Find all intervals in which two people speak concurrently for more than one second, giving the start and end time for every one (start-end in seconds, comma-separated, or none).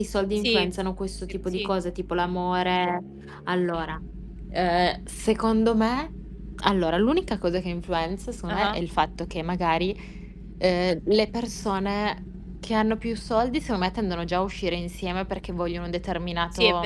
none